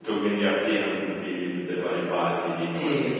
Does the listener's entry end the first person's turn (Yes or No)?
No